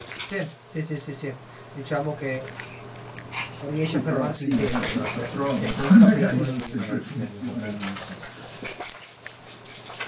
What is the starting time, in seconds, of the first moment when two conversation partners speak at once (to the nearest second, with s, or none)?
4 s